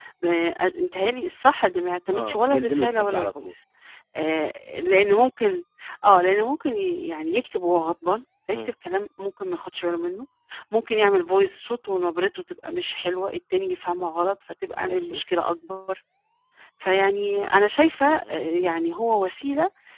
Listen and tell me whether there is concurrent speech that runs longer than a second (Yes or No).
Yes